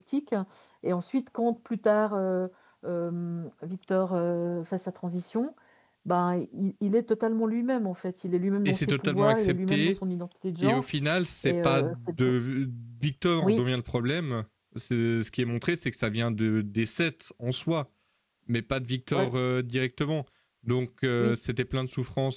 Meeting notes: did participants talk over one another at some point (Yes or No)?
Yes